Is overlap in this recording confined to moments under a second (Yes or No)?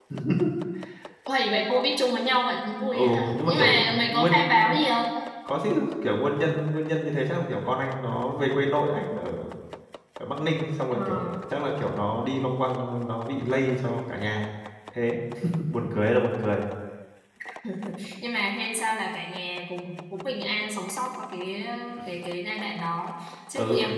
No